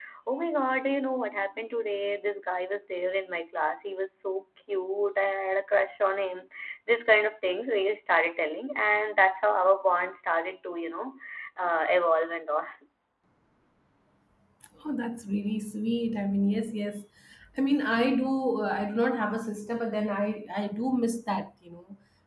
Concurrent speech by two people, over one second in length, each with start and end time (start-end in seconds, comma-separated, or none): none